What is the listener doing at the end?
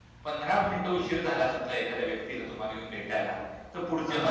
listening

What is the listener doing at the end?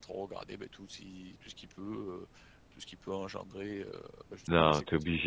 taking over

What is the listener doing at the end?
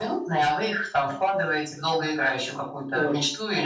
taking over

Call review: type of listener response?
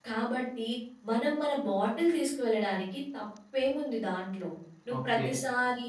listening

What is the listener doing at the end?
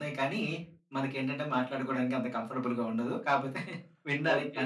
taking over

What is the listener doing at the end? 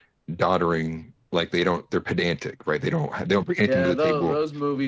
taking over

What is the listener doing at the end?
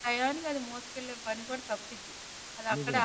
listening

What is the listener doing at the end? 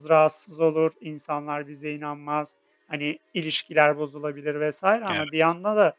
listening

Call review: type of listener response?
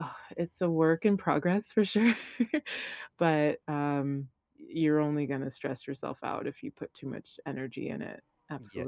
taking over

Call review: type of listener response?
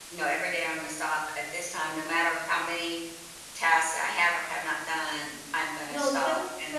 taking over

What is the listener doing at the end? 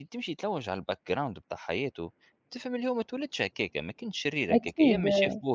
listening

